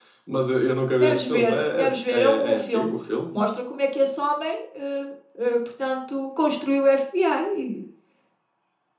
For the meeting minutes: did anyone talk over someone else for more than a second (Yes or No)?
Yes